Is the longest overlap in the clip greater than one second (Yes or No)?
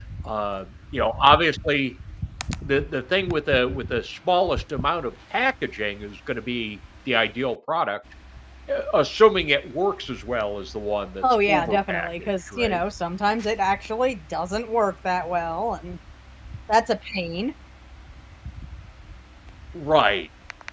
Yes